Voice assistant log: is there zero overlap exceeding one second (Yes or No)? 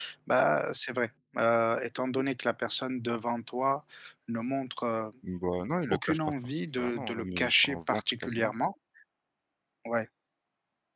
No